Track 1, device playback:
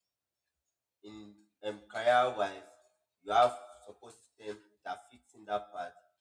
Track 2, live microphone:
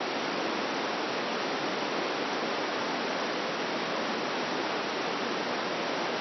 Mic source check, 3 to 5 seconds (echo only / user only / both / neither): neither